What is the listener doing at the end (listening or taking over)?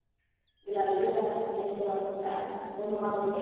taking over